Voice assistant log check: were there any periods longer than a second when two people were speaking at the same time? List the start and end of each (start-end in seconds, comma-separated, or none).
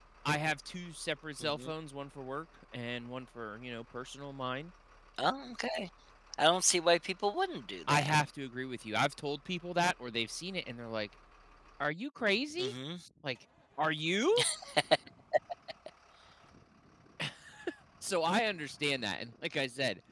none